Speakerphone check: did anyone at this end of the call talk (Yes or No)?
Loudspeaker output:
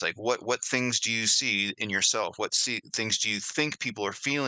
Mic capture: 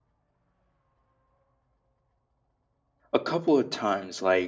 Yes